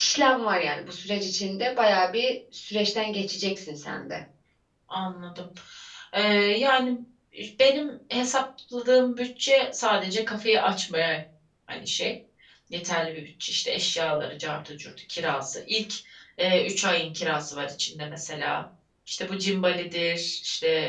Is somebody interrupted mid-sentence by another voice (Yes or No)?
No